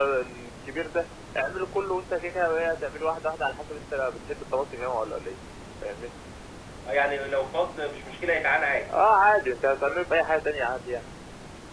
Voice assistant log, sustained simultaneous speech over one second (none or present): none